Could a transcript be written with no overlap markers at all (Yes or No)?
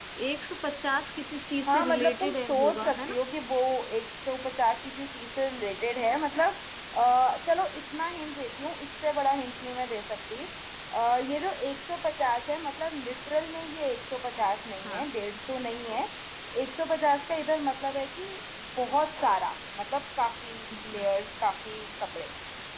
No